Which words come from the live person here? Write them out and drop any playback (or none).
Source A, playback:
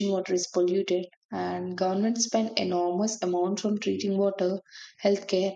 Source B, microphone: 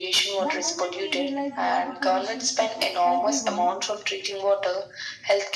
The moment we realize water pollution affects everyone,